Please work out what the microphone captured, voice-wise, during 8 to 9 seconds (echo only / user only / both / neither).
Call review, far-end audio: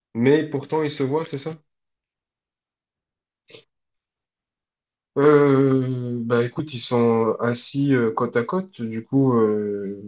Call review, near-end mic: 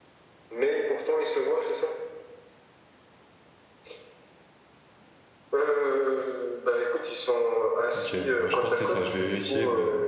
both